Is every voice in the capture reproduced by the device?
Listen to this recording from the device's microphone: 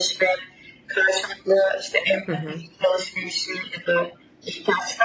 No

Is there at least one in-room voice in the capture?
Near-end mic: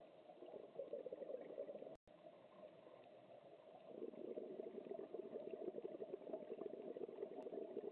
No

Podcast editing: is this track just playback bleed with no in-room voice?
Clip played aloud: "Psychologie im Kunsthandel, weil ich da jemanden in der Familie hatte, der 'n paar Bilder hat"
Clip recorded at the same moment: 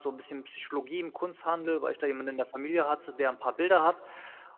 Yes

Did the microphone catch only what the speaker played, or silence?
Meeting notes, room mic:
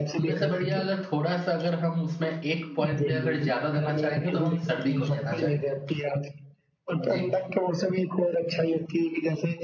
No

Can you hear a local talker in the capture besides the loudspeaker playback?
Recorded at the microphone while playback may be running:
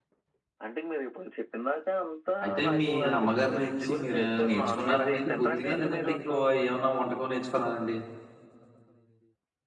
Yes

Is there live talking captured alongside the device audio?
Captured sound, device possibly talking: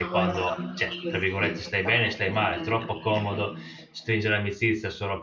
Yes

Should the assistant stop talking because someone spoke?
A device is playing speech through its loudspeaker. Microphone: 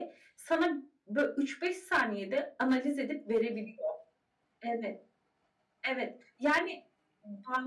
No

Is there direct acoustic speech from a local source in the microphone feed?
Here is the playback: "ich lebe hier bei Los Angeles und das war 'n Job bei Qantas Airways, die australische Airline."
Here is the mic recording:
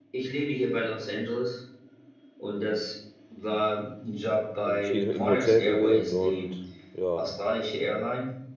Yes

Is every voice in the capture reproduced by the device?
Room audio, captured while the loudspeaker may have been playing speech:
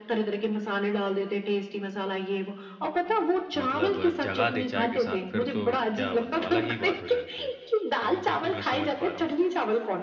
No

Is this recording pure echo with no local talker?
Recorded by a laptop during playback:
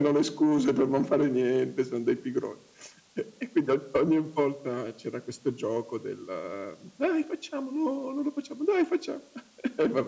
Yes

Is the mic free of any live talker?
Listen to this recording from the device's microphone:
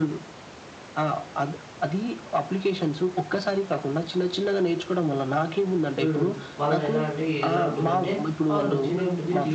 No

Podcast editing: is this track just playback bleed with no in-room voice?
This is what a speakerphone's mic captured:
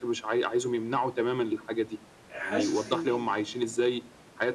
No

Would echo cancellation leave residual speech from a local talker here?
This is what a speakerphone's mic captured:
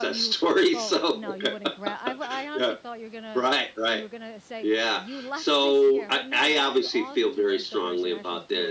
Yes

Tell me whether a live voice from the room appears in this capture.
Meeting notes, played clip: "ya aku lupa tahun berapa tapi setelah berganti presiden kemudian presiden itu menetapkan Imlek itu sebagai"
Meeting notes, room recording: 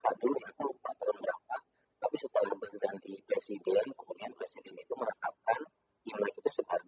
No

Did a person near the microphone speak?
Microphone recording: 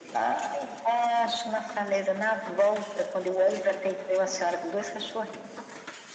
No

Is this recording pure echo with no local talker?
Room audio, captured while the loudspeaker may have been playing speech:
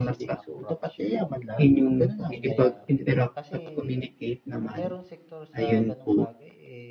No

